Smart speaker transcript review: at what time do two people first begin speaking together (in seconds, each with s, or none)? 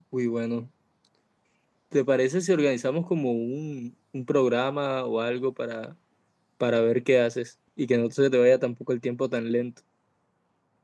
none